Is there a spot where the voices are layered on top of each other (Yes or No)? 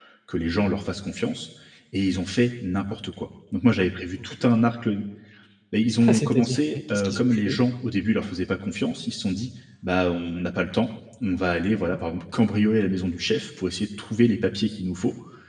Yes